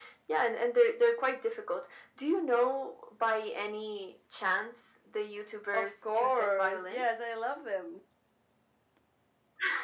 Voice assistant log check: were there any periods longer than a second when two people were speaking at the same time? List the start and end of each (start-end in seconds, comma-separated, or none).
5.7-7.0